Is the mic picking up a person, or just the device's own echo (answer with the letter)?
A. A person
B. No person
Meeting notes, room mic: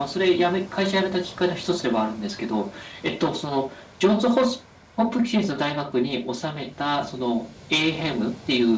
B